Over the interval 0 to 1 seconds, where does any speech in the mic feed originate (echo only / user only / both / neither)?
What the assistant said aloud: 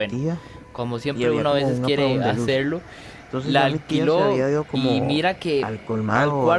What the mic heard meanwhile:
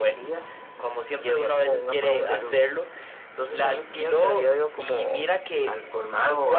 echo only